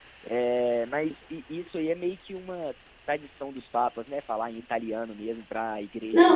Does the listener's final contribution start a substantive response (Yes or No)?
Yes